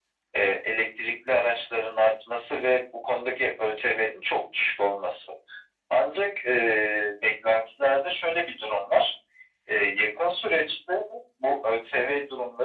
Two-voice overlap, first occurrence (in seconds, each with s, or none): none